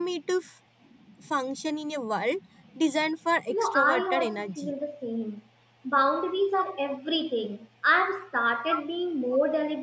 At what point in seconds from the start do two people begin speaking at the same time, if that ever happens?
3 s

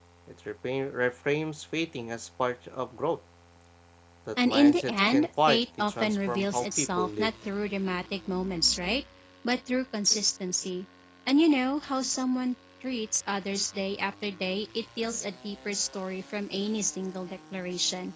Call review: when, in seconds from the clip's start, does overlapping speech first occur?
4 s

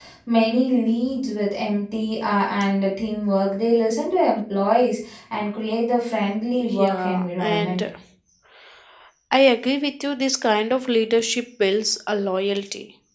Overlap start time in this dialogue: 7 s

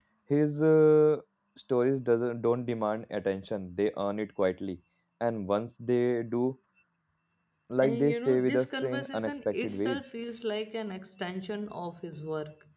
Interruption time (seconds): 8 s

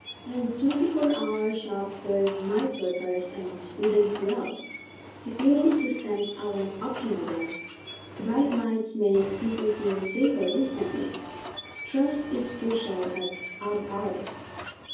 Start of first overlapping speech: none

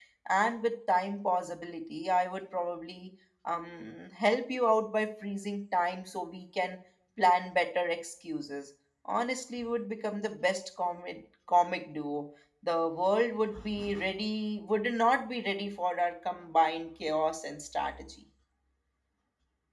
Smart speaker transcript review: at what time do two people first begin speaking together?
none

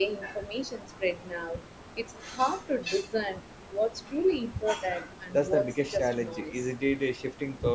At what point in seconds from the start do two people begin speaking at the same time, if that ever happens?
5 s

